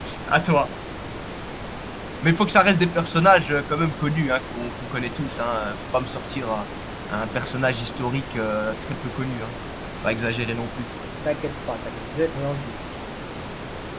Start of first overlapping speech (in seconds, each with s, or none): none